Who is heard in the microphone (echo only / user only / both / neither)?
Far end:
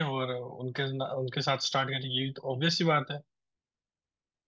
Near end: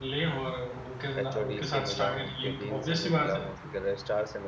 both